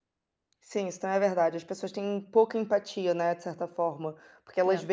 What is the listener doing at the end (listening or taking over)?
listening